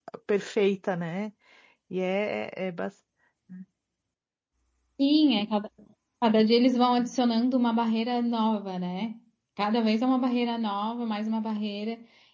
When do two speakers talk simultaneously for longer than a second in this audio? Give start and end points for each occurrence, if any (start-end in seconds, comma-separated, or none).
none